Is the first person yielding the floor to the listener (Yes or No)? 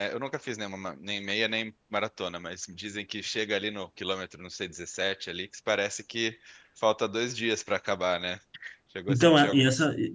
Yes